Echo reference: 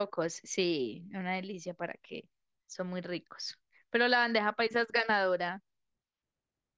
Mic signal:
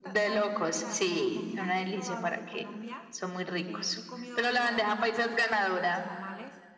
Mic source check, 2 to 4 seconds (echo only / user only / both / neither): both